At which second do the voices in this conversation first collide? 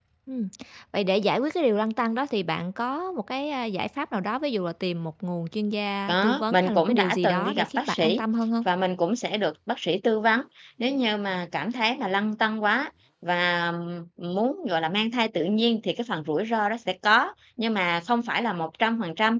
6 s

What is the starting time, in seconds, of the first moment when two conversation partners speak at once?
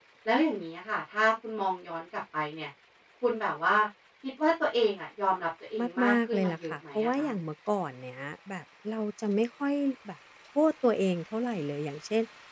6 s

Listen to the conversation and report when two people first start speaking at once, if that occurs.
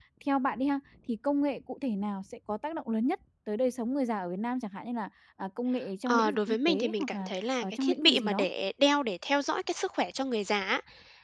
6 s

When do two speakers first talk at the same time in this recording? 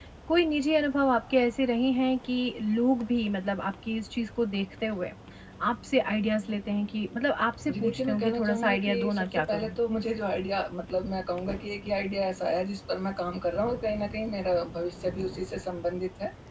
8 s

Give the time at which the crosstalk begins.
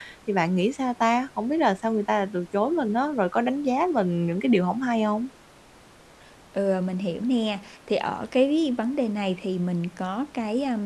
none

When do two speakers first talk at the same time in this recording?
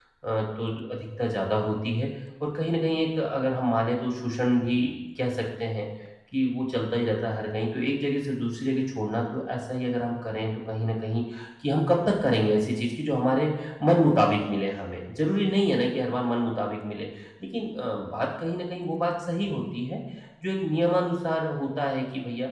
none

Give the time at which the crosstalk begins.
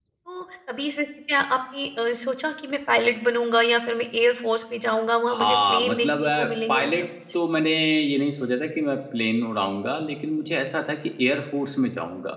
5 s

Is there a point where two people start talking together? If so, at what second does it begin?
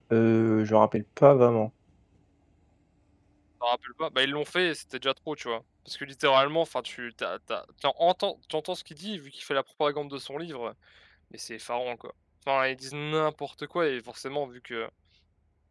none

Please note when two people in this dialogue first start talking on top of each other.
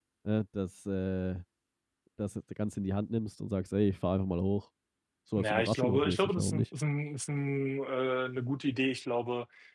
5 s

